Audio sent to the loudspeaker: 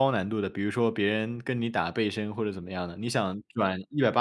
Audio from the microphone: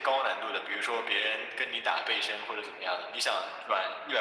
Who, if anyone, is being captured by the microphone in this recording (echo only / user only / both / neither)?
echo only